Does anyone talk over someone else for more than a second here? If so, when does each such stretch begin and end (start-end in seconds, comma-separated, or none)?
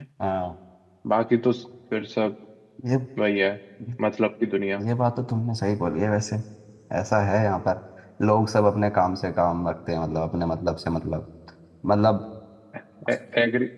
none